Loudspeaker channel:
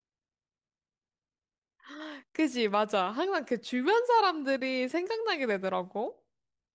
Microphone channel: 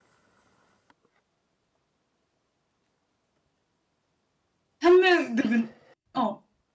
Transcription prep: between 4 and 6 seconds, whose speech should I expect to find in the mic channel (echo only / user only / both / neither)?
user only